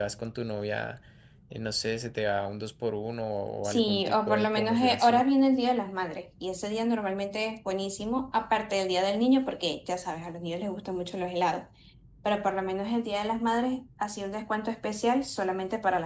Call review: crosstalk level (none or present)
present